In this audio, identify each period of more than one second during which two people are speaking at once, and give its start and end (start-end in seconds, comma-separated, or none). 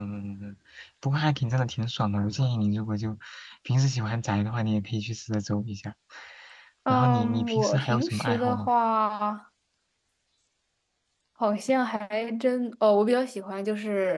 6.9-8.7